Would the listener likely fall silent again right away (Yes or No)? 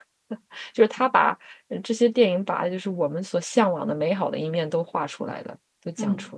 No